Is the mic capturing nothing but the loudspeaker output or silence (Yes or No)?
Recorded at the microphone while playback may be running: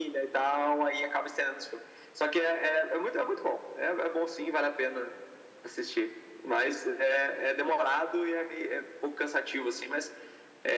Yes